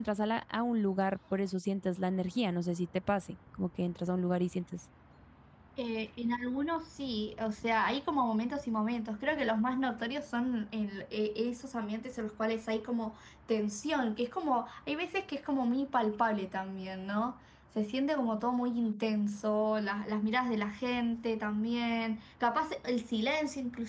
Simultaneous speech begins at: none

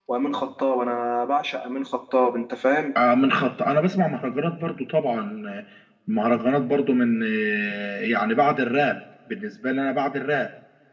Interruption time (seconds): none

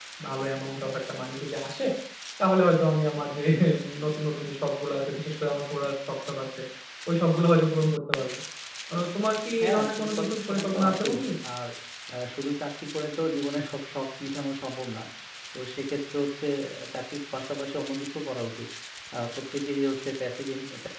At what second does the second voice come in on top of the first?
9.6 s

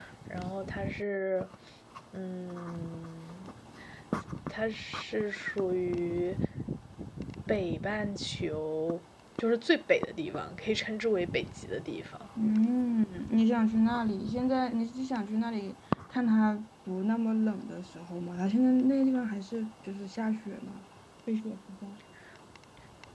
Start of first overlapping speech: none

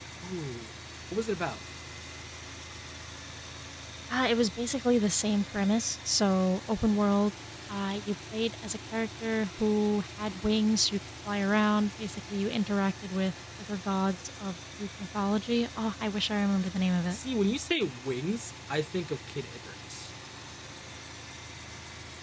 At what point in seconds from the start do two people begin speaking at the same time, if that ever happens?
none

